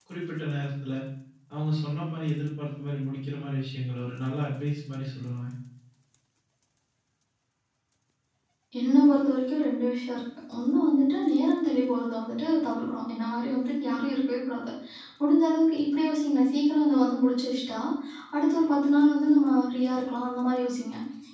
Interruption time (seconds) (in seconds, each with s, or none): none